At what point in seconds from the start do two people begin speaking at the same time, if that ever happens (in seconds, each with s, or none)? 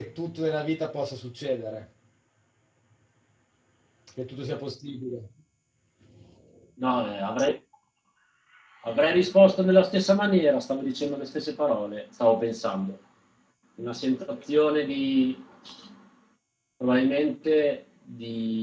none